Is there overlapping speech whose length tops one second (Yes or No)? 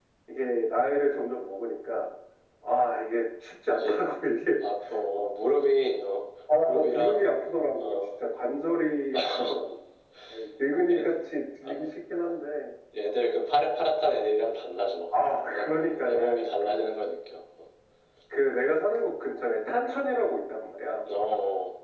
Yes